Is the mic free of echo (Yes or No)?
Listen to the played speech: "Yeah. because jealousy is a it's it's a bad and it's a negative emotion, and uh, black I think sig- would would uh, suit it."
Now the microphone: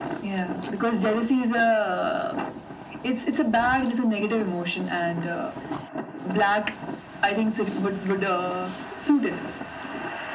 No